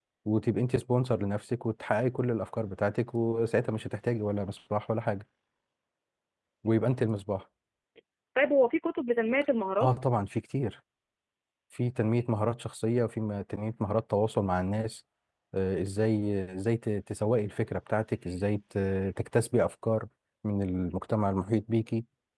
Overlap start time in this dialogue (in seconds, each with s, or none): none